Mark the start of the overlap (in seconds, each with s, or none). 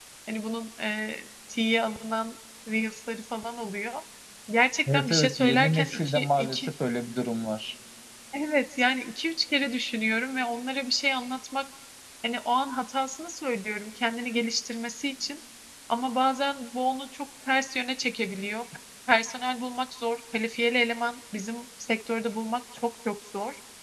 4.9 s